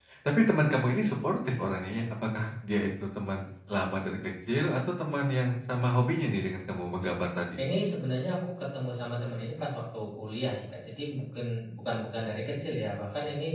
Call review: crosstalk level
none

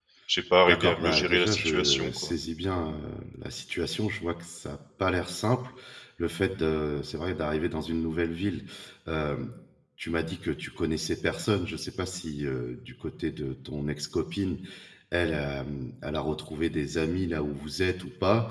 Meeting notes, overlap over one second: present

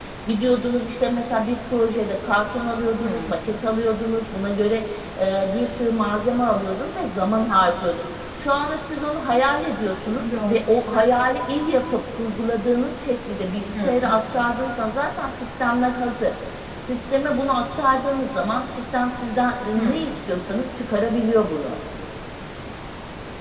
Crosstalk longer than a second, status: none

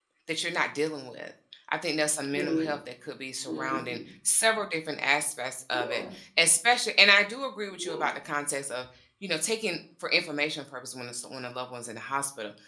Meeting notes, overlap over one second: none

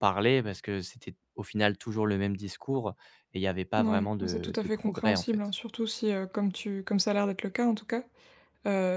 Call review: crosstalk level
present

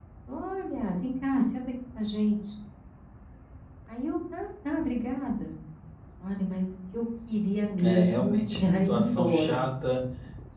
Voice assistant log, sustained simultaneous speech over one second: present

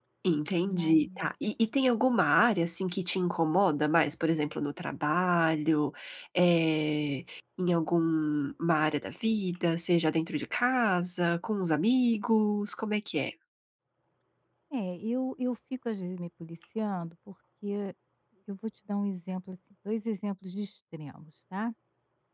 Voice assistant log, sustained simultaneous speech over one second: none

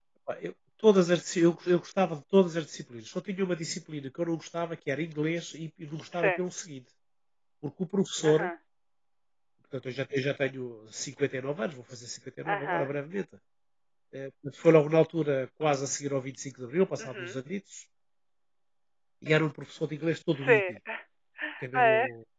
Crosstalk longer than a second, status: none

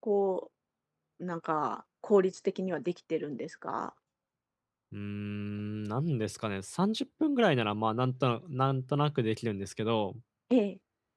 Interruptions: none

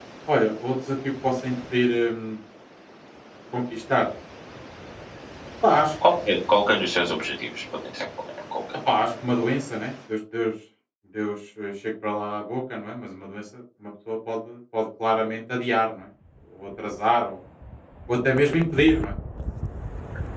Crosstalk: none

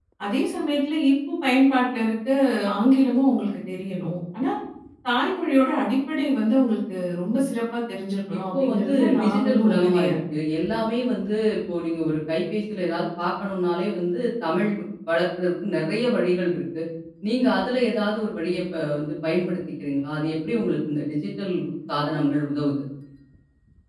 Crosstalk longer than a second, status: present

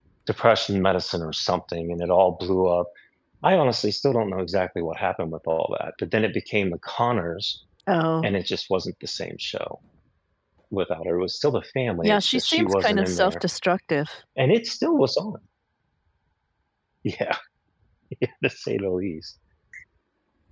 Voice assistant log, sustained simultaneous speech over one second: present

